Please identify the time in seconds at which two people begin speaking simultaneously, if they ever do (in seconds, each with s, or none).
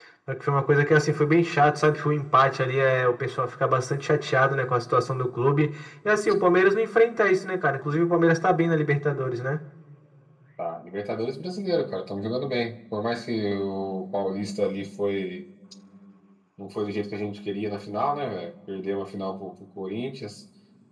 none